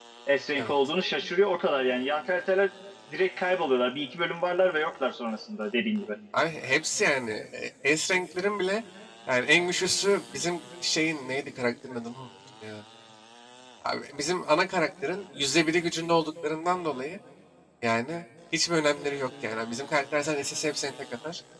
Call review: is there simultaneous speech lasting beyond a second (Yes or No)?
No